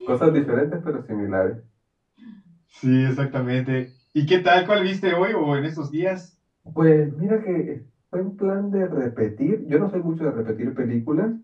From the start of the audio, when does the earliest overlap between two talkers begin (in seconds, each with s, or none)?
none